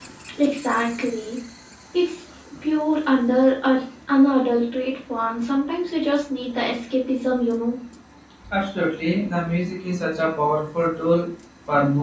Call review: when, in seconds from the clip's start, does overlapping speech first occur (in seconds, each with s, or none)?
none